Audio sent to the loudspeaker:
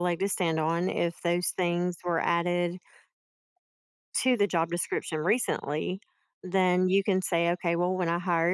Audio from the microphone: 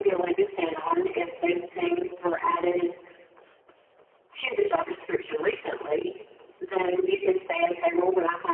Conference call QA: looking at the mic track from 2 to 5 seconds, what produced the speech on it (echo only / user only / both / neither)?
echo only